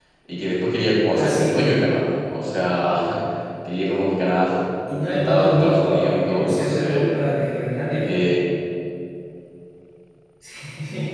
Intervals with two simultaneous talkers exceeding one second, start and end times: 5.0-7.2

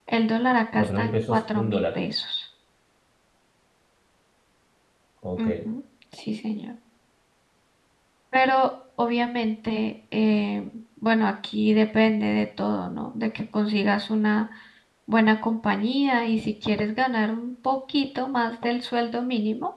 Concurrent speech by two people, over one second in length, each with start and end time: 0.8-2.0

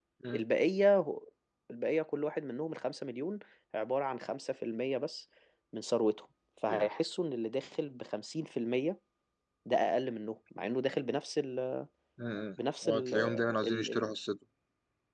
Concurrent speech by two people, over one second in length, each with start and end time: 12.8-14.1

